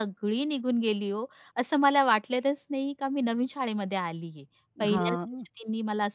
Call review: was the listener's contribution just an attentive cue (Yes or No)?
Yes